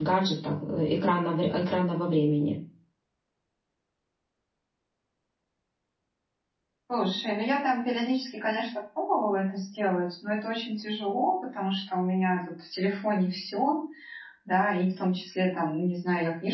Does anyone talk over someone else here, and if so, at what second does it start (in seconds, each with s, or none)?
none